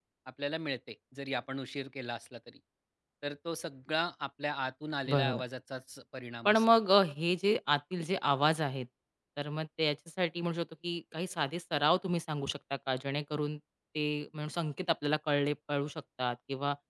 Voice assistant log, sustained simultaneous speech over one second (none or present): none